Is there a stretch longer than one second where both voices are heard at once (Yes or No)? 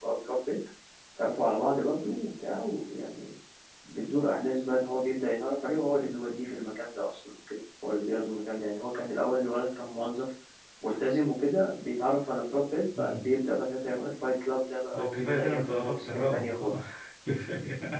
Yes